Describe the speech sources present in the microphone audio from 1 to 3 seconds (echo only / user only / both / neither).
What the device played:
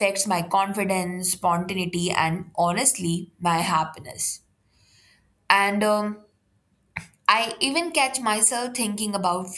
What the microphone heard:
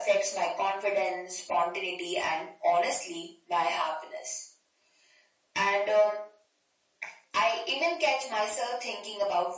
echo only